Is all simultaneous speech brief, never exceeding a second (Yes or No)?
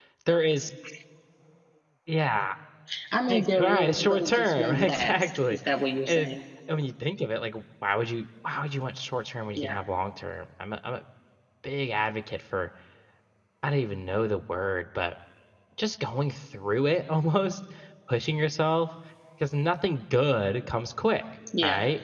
No